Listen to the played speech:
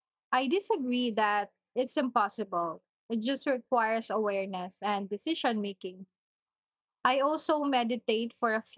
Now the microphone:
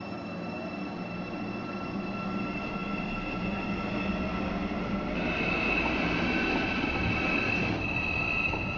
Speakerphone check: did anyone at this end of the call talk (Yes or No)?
No